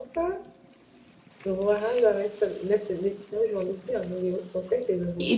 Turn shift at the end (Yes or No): Yes